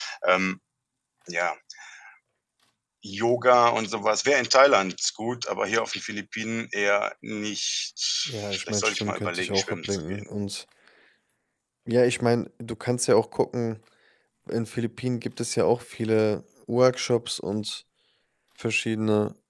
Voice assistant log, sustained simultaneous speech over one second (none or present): present